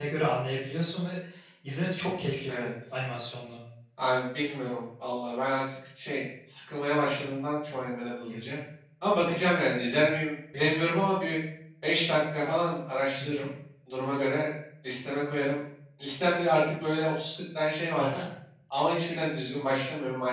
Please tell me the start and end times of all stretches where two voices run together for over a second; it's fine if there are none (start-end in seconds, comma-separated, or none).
none